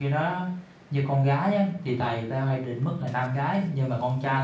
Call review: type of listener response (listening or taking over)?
listening